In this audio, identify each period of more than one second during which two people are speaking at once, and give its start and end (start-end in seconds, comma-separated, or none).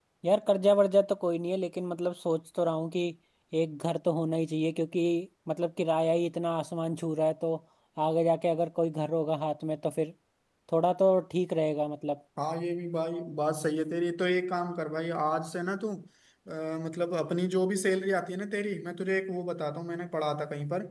none